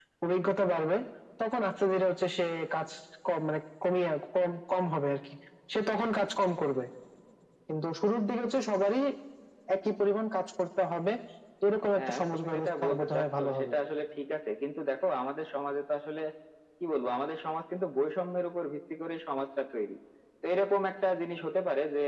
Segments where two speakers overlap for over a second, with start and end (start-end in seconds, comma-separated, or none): 12.0-13.7